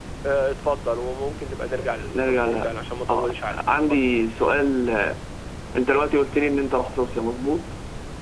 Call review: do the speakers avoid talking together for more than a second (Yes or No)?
Yes